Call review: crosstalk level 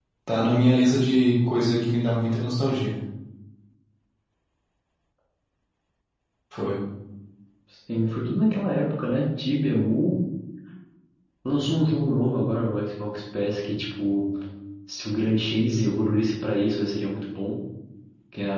none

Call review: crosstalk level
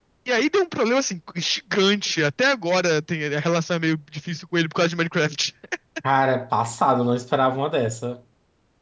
none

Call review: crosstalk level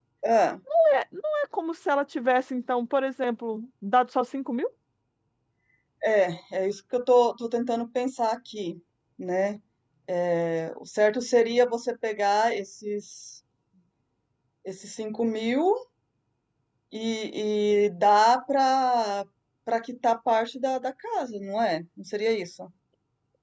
none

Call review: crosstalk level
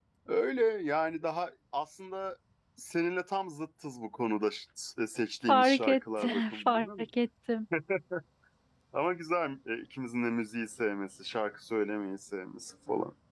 present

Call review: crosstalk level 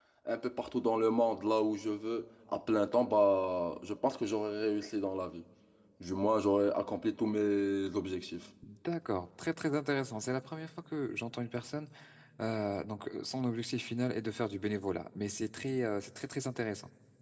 none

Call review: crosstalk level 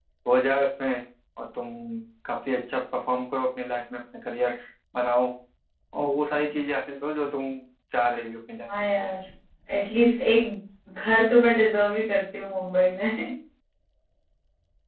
none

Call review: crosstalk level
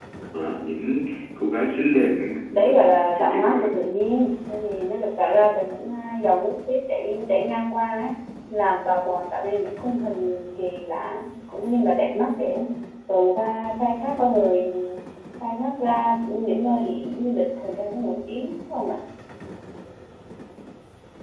present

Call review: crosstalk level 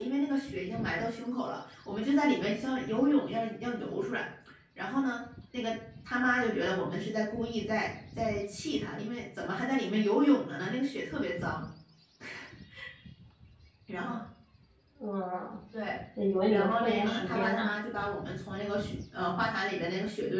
present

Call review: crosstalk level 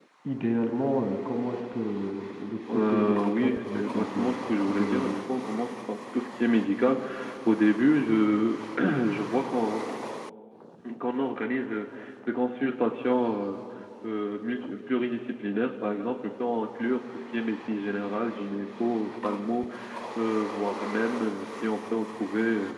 present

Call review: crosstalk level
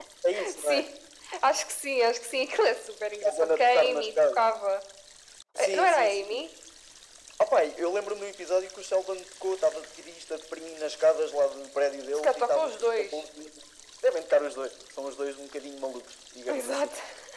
present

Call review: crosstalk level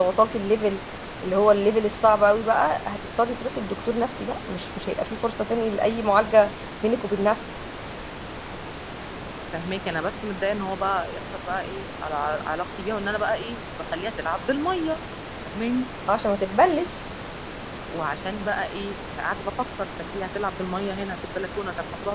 none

